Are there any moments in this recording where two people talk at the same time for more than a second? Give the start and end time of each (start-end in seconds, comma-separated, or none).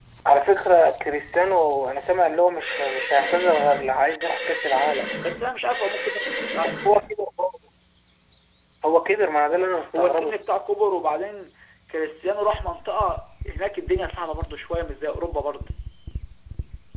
none